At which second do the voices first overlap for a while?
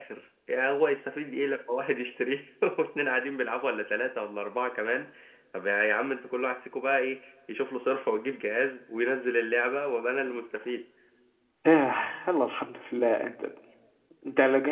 none

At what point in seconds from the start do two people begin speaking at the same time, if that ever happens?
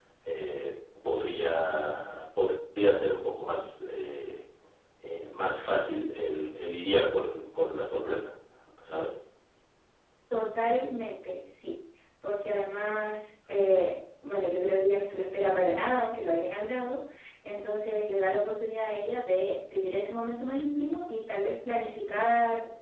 none

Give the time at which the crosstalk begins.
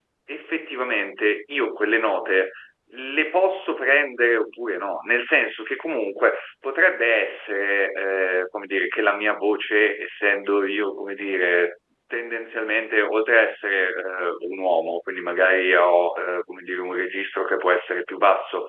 none

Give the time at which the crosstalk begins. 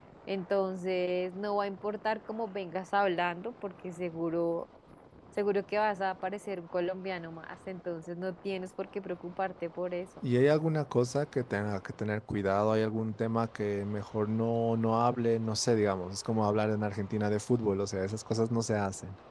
none

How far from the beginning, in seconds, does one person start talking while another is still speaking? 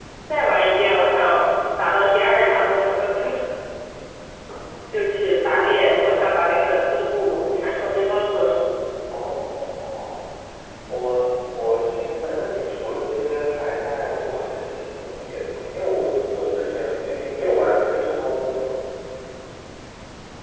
none

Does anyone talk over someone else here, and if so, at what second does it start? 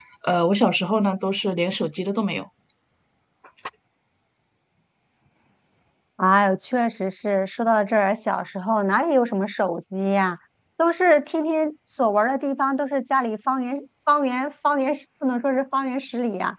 none

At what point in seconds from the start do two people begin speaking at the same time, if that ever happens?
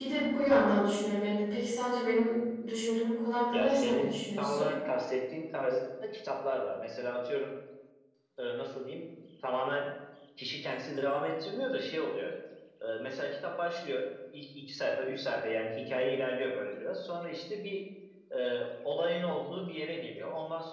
3.5 s

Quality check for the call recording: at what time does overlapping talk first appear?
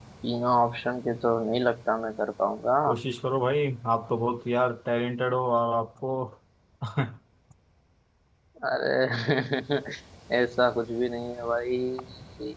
none

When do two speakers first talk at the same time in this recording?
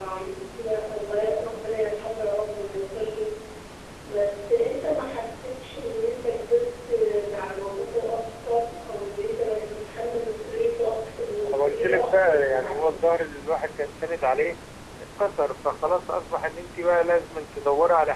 11.4 s

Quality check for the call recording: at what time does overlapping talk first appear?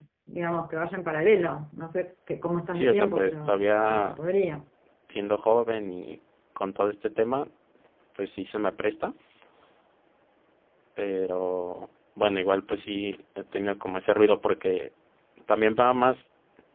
2.7 s

